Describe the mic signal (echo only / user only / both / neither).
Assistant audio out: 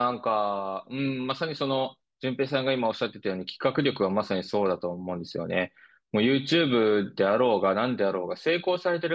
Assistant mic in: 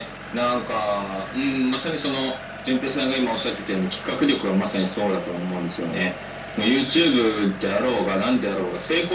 echo only